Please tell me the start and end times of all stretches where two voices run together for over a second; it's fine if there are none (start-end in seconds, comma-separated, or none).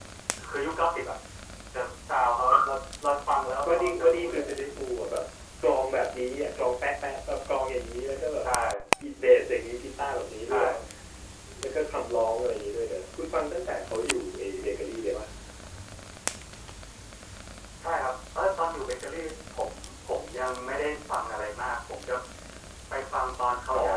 3.7-4.9